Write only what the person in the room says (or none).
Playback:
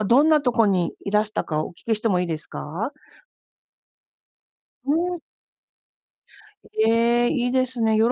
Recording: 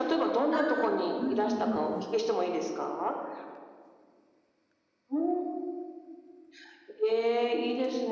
ああ、ふんふんふんふん。